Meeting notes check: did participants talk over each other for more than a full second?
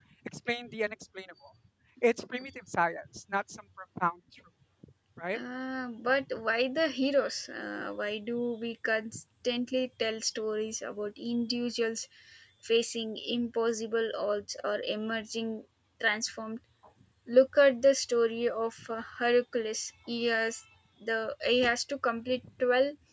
No

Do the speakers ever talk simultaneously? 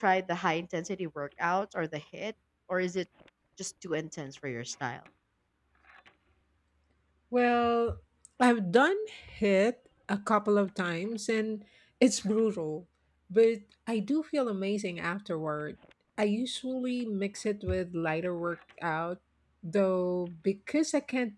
No

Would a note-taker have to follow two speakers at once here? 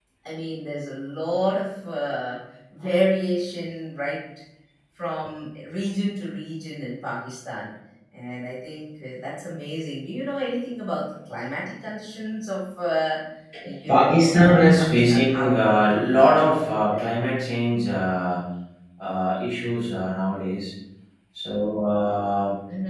Yes, from 13.9 s

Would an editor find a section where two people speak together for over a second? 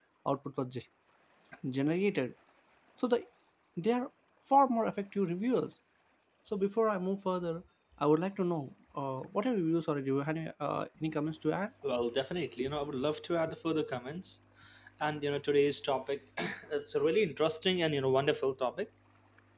No

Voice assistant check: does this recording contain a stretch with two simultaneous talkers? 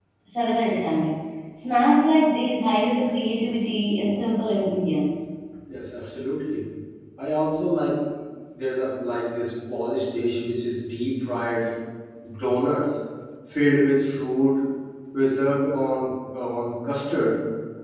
No

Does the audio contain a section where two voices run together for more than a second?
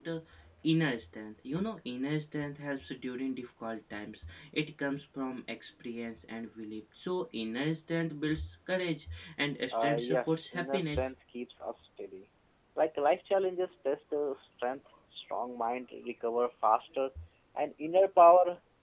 Yes, from 9.7 s

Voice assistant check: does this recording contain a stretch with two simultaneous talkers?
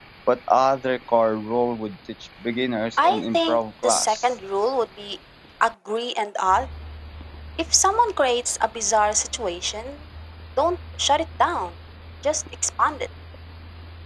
Yes, from 3.0 s

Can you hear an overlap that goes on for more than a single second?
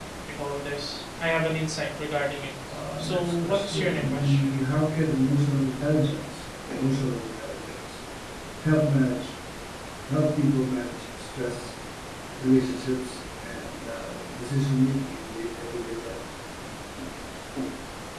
Yes, from 3.0 s

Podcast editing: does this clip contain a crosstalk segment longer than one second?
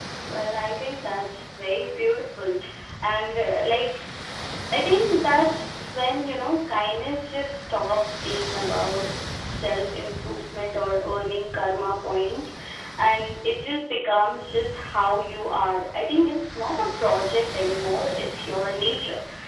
No

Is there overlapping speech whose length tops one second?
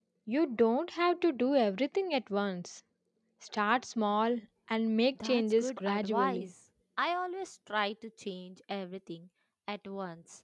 Yes, from 5.2 s

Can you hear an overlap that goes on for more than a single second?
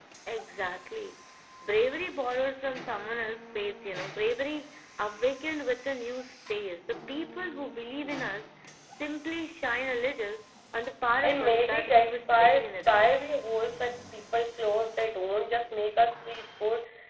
Yes, from 11.2 s

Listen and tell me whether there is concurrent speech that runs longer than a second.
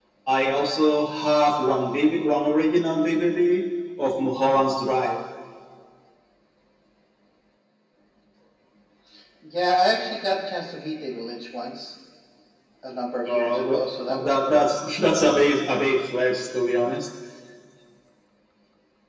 Yes, from 13.2 s

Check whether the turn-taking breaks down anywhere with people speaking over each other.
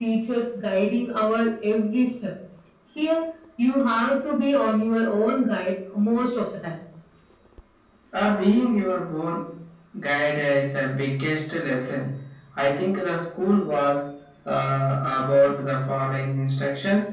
No

